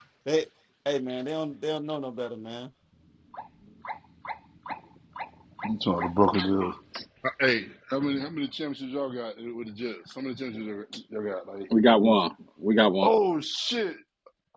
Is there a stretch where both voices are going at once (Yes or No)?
No